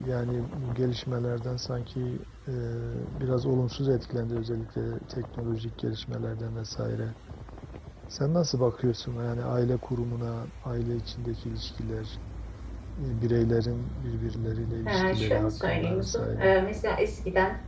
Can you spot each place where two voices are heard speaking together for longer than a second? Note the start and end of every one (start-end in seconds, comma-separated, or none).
14.9-16.5